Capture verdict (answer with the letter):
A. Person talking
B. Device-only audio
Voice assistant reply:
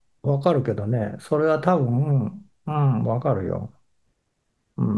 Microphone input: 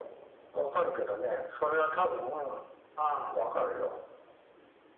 B